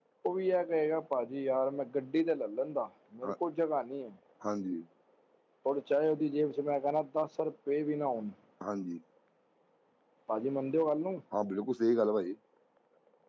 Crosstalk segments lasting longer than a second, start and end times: none

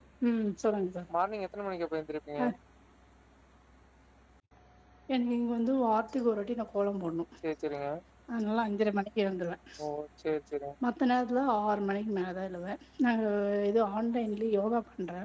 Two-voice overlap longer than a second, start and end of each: none

